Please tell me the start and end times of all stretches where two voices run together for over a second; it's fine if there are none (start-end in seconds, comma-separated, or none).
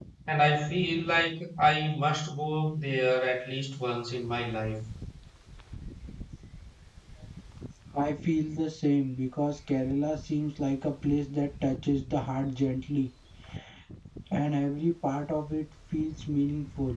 none